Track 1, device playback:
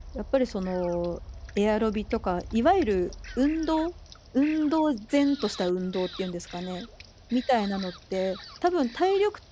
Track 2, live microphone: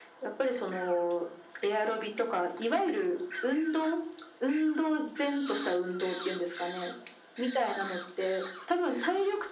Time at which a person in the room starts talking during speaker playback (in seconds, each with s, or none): none